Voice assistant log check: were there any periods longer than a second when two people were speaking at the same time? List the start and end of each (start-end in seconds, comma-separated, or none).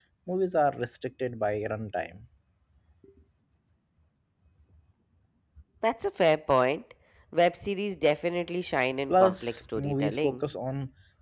9.1-10.4